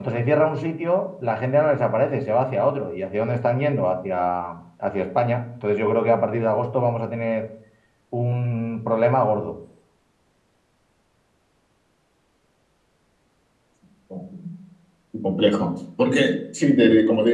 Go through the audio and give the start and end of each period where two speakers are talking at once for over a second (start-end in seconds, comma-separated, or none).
none